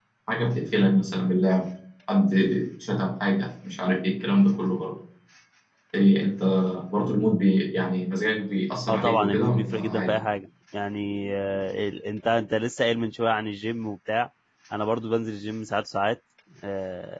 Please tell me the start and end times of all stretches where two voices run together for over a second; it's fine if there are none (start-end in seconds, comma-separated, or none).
8.9-10.2